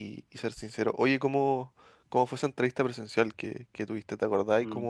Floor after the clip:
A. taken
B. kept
B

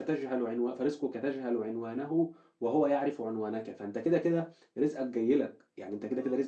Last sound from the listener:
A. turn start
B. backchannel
B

